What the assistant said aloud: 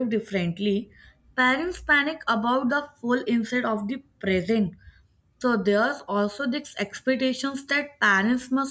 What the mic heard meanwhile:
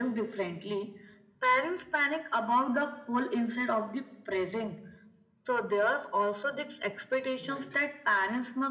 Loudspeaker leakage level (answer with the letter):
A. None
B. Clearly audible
B